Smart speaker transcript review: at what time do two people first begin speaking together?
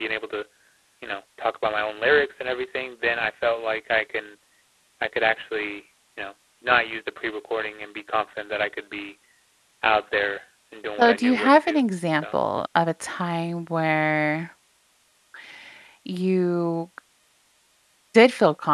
11 s

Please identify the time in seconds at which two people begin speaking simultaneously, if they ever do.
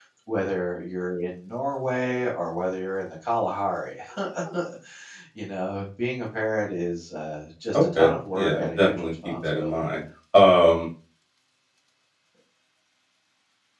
8 s

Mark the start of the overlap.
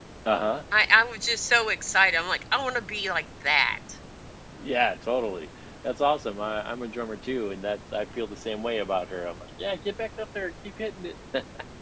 none

